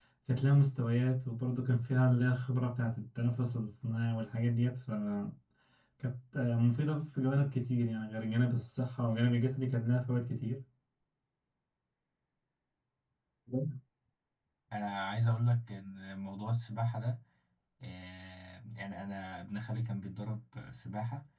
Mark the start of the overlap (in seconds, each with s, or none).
none